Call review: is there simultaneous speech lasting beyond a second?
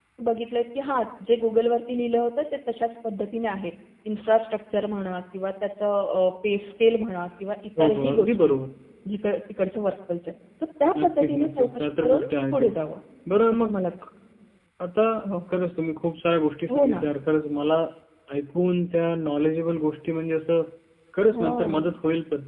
Yes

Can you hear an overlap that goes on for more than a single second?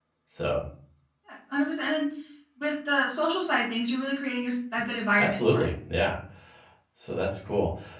No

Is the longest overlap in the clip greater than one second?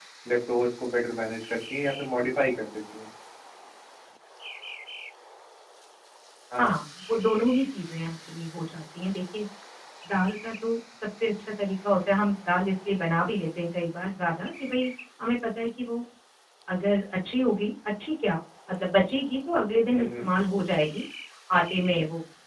No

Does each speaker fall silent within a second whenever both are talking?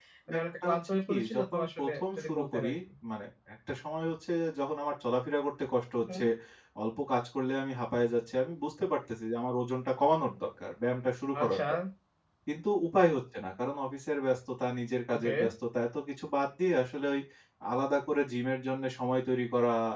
No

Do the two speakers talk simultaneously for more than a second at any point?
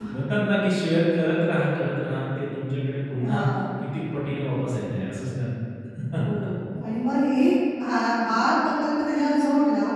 No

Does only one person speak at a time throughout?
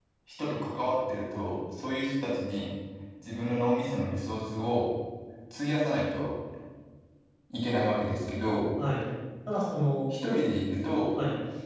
Yes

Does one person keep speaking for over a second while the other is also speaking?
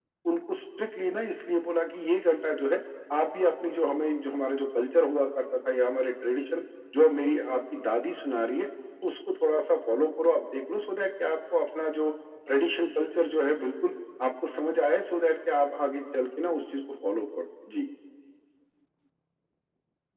No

